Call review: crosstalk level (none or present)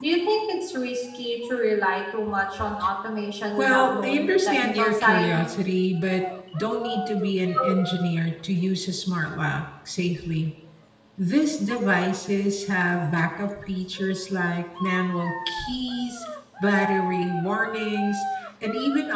present